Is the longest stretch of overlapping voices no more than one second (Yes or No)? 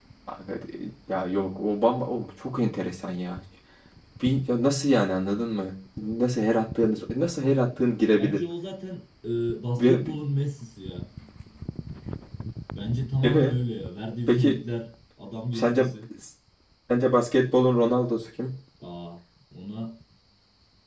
Yes